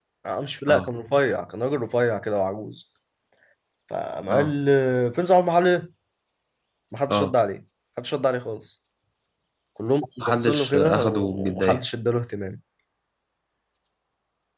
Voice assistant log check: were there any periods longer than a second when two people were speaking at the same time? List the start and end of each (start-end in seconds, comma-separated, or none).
10.2-11.8